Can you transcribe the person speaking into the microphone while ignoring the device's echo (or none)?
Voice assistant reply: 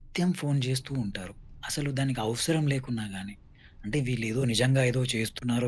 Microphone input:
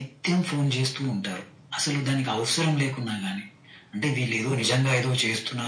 none